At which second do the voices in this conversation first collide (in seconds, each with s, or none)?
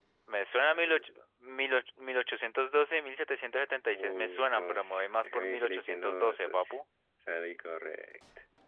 3.9 s